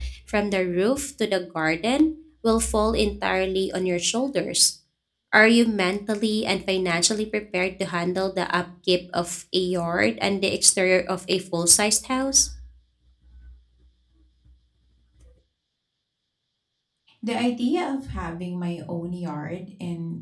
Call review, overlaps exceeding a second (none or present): none